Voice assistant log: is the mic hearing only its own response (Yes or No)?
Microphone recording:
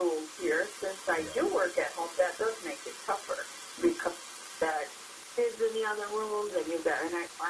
No